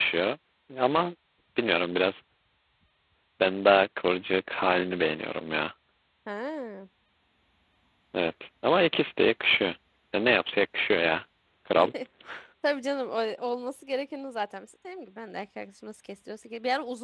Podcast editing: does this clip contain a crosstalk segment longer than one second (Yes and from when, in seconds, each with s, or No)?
No